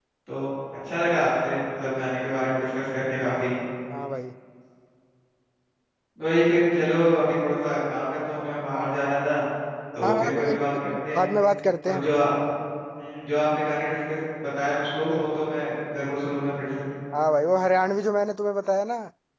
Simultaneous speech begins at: 10.0 s

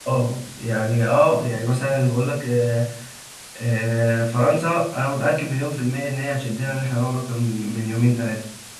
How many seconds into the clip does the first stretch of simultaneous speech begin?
none

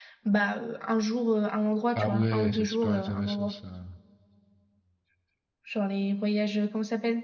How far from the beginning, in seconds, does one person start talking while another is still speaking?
1.9 s

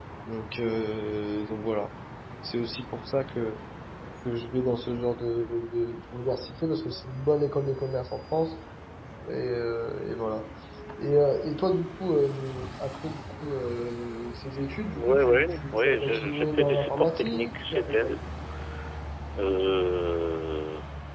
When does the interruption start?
14.9 s

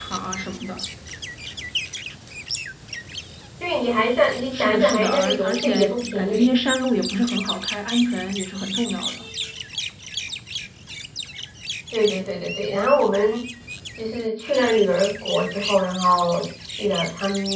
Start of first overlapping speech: 4.5 s

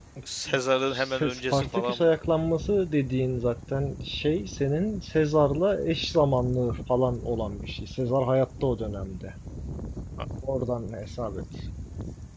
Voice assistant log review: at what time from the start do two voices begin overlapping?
0.9 s

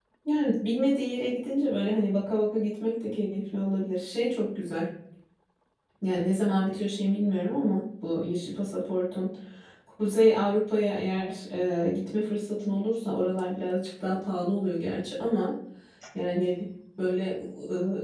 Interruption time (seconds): none

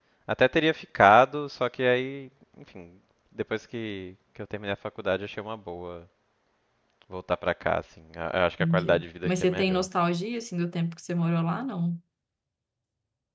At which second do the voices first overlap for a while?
8.6 s

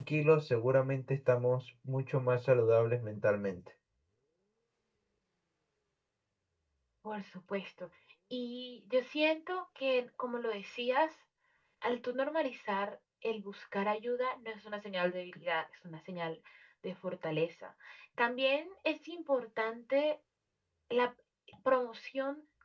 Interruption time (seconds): none

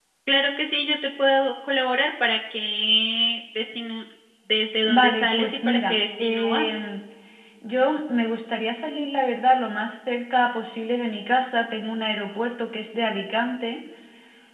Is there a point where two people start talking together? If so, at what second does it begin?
4.8 s

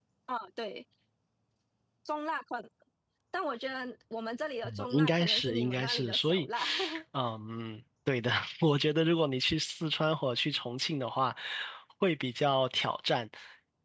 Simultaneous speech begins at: 4.6 s

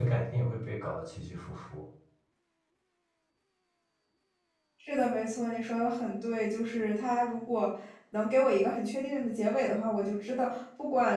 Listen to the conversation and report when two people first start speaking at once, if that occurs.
none

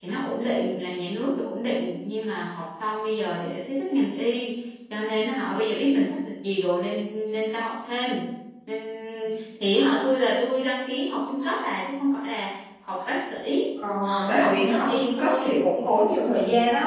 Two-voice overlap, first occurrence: 14.3 s

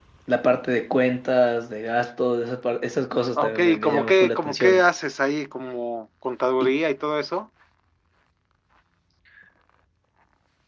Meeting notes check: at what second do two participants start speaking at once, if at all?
3.4 s

